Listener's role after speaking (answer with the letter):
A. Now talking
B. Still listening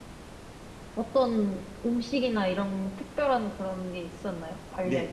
A